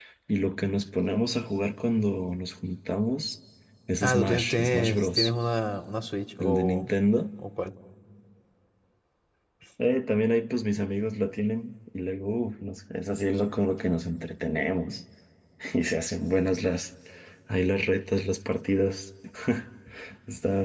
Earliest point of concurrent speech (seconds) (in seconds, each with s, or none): 4.0 s